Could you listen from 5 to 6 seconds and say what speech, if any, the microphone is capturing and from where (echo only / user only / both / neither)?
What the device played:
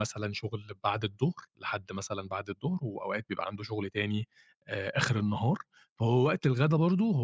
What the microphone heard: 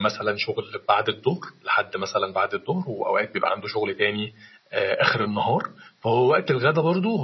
echo only